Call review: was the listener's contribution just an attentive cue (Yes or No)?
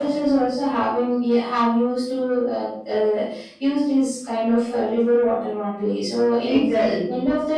Yes